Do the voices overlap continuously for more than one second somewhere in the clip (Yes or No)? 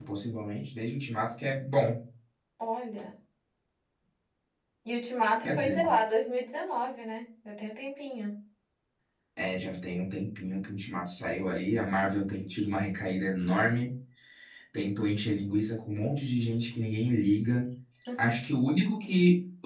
No